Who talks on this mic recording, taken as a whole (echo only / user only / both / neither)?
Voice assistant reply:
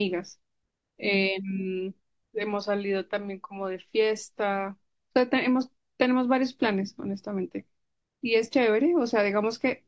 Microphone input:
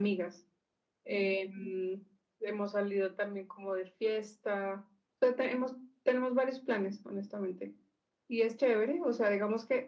echo only